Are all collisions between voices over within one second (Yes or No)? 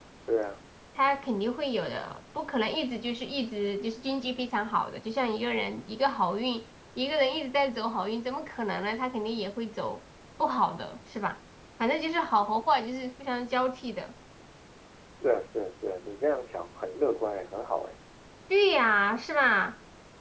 Yes